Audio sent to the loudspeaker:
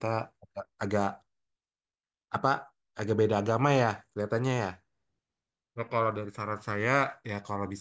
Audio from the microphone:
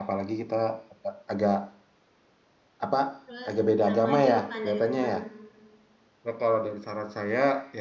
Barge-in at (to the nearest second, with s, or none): 3 s